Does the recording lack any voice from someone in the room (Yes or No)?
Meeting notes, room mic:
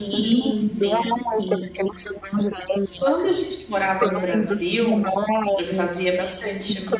No